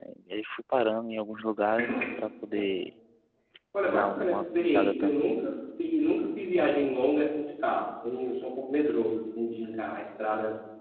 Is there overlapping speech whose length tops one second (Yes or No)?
Yes